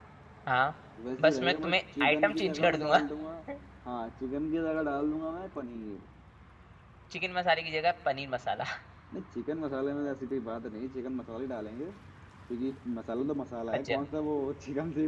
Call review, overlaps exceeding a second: present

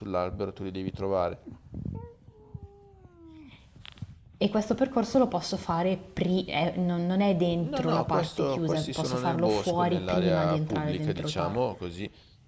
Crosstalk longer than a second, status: present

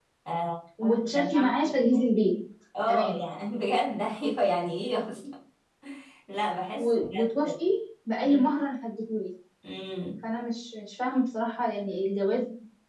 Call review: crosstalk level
present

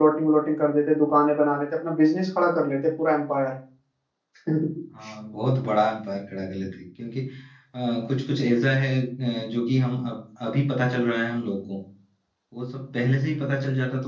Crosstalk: none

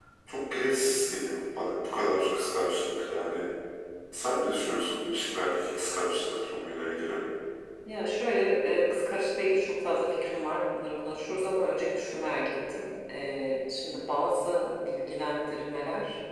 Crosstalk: none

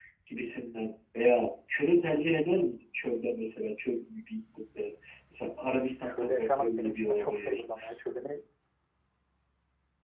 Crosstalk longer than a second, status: present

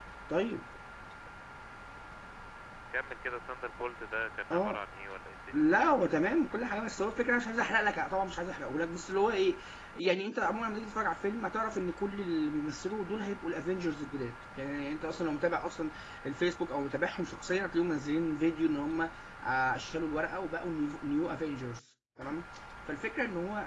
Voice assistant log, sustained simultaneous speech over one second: none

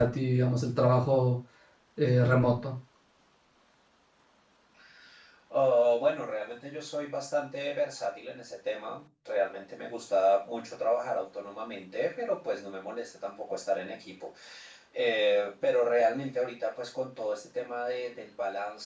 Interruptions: none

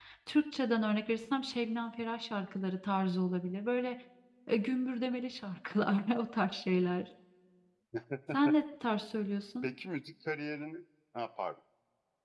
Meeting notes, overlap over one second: none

